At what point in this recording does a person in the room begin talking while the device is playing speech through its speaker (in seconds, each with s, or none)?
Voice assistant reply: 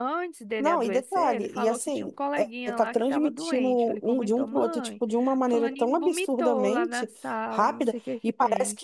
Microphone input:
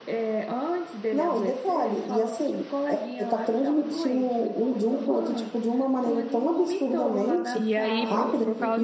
7.5 s